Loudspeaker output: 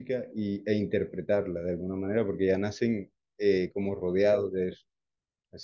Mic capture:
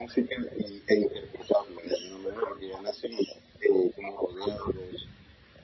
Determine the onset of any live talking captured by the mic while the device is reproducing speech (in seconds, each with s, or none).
none